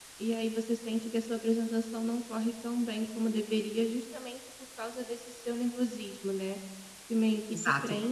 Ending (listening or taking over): listening